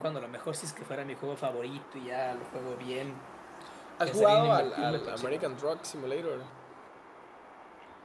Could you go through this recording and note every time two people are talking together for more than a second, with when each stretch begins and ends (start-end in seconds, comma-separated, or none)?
4.0-5.5